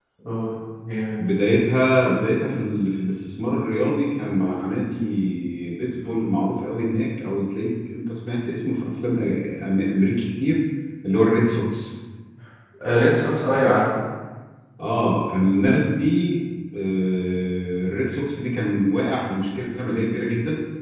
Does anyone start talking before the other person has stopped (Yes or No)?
No